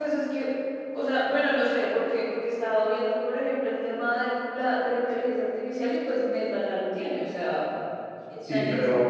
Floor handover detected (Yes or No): Yes